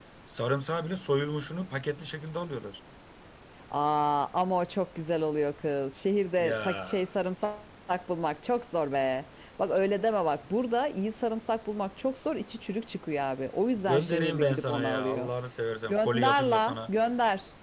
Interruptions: present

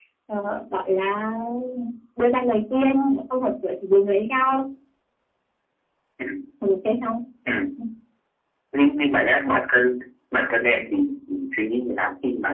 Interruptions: none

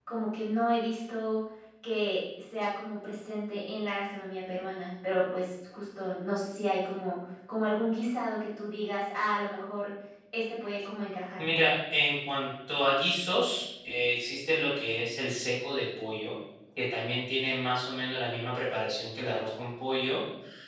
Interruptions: none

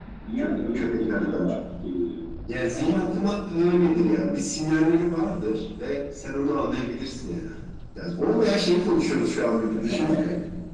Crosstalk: present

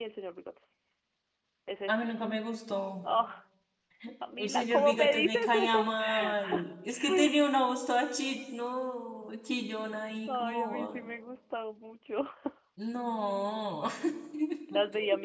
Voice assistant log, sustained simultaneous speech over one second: present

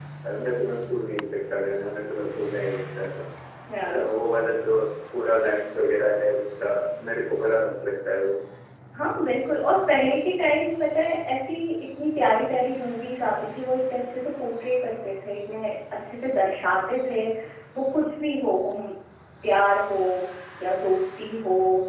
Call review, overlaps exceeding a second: none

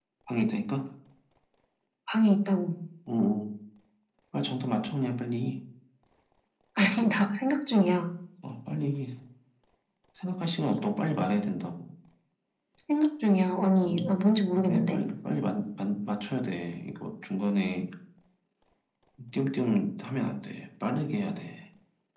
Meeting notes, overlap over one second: none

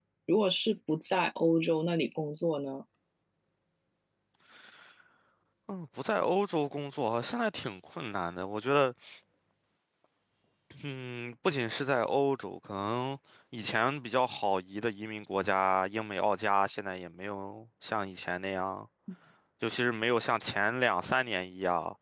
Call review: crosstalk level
none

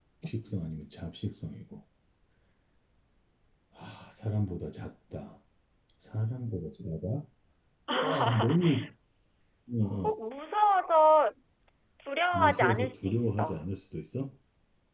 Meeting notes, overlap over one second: present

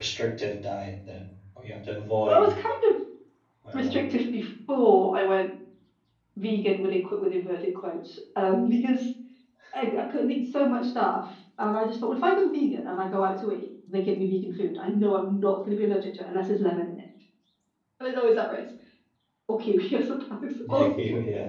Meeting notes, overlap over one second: none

